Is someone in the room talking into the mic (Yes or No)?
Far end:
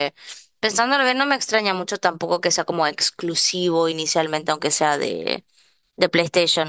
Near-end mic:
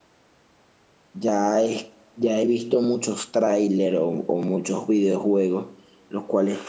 Yes